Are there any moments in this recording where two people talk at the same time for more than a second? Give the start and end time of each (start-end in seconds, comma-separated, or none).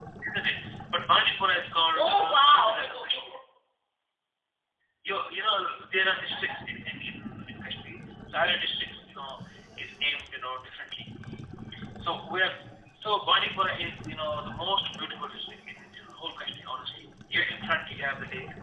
2.0-3.3